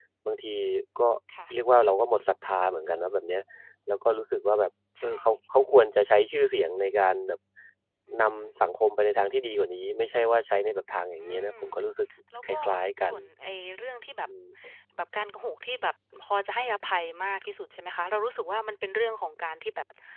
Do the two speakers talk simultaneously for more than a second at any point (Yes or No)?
No